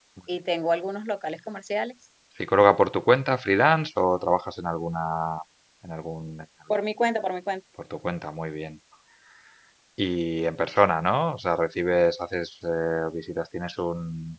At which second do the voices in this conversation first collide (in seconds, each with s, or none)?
none